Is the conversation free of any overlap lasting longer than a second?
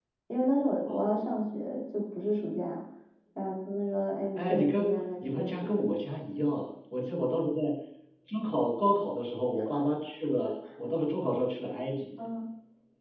No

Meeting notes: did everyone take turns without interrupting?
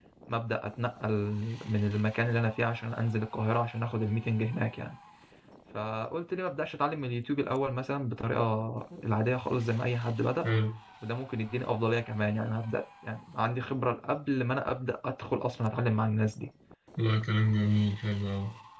Yes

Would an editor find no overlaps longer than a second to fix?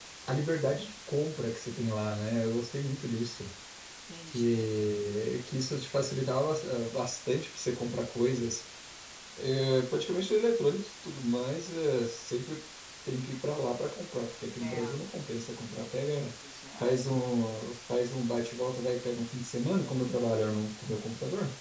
Yes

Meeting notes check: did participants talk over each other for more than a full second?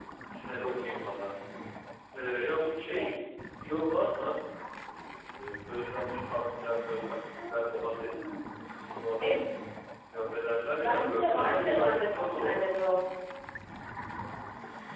Yes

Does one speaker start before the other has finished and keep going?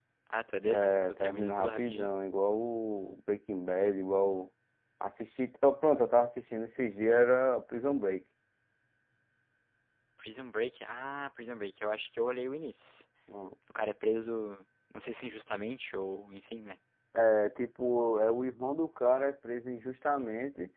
Yes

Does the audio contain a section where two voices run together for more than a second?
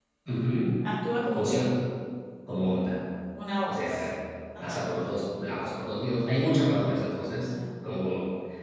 No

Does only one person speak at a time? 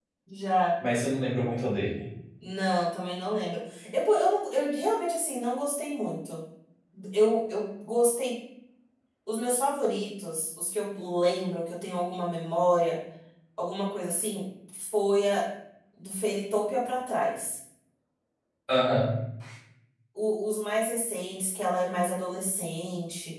Yes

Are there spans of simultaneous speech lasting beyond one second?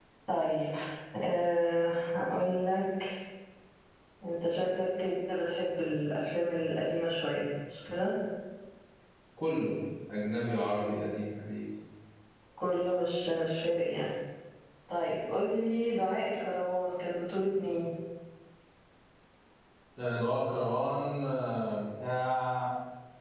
No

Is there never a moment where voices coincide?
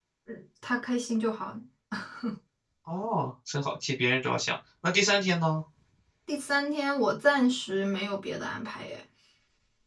Yes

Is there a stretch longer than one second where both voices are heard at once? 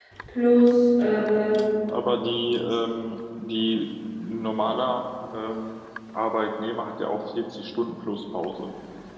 No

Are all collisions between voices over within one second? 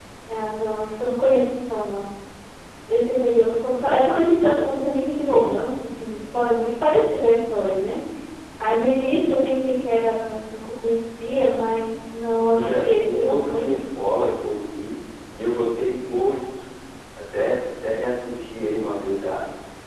No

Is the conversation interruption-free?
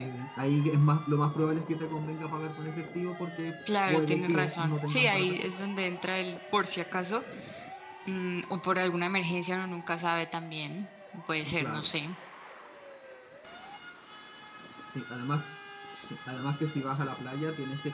No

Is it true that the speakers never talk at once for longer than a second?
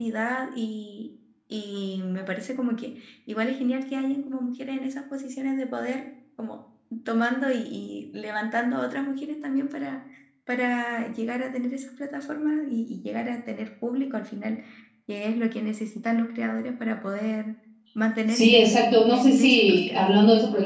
No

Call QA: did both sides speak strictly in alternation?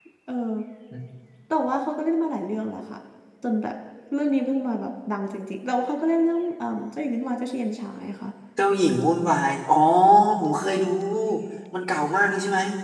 Yes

